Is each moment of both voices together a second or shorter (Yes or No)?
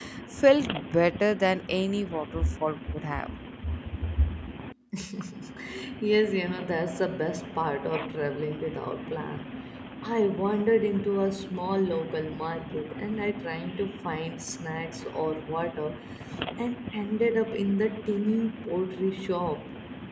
Yes